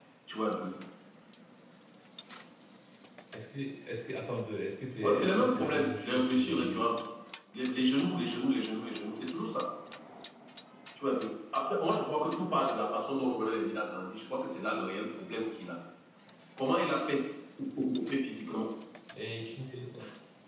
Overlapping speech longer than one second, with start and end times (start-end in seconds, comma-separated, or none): 5.0-6.9